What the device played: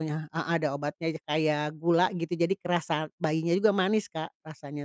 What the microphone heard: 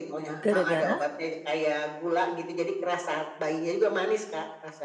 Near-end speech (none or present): present